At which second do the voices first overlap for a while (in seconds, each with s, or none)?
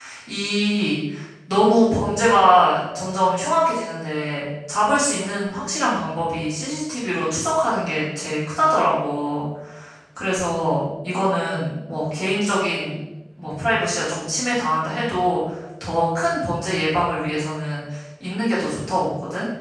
none